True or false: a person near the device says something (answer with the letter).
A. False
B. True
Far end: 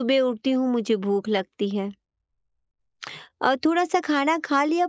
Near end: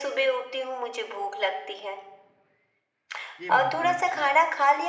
B